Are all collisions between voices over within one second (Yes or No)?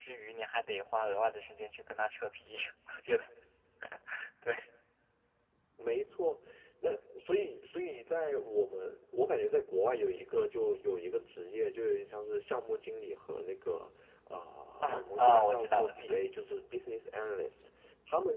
No